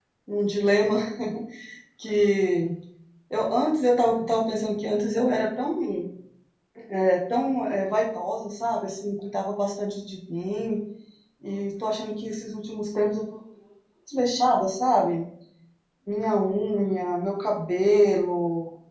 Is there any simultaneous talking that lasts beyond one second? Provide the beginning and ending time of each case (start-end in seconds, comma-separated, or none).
none